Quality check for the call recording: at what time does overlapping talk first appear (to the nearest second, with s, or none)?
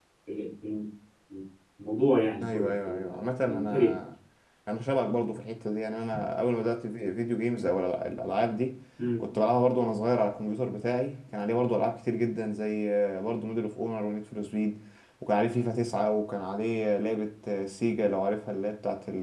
2 s